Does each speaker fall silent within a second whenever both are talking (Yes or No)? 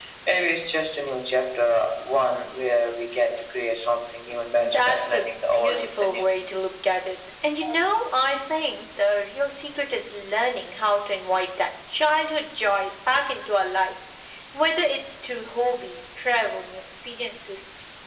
No